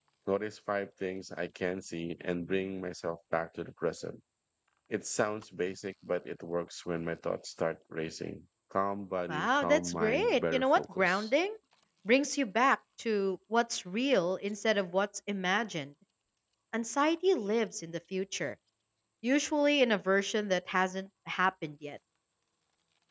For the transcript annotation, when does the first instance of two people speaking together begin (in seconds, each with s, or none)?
9.3 s